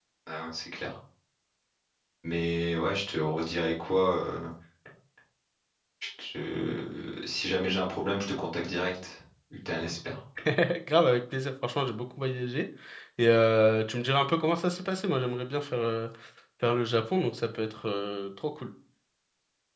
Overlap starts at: none

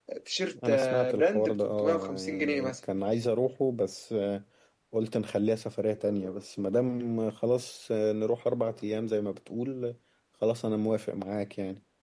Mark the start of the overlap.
1 s

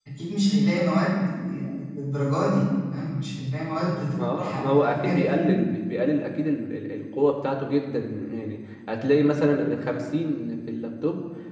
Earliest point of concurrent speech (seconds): 4 s

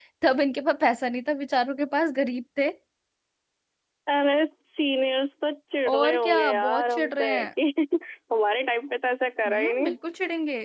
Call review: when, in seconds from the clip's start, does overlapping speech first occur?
6 s

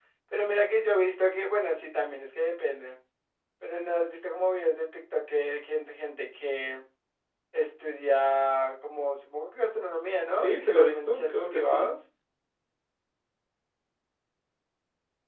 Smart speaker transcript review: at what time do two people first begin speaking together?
10 s

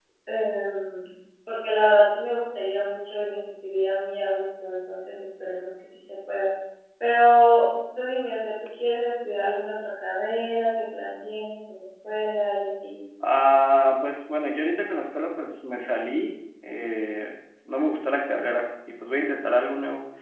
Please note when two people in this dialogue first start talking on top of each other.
none

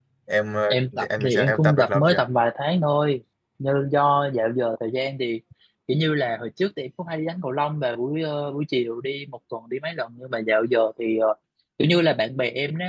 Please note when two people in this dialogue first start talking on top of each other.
1 s

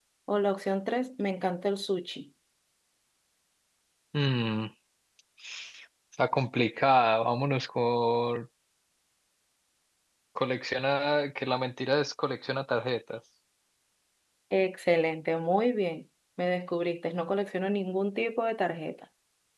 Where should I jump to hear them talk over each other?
none

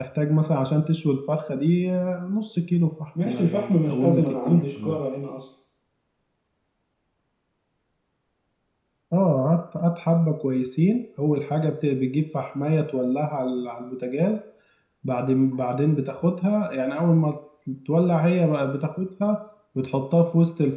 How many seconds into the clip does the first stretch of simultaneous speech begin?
3 s

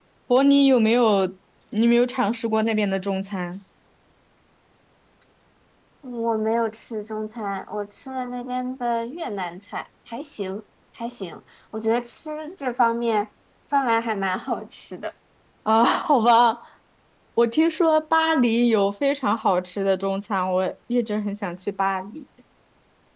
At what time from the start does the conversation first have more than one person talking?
none

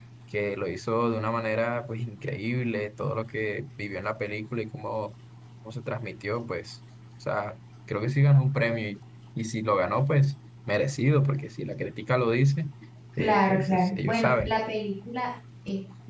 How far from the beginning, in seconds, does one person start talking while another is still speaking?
13 s

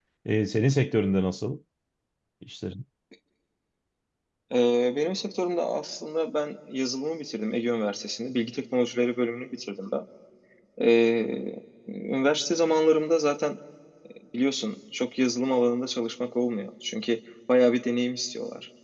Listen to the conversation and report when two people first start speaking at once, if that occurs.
none

